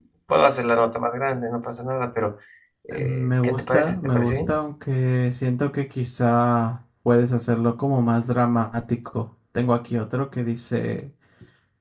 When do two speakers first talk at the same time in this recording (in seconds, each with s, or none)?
3.0 s